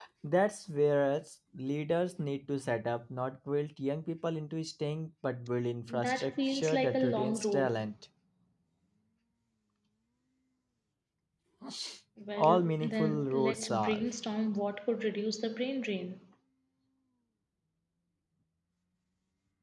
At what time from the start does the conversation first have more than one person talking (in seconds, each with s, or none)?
5.9 s